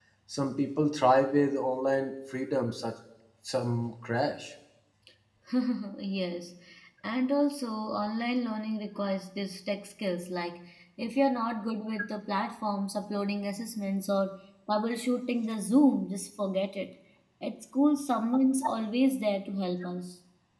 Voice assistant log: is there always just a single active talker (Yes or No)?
Yes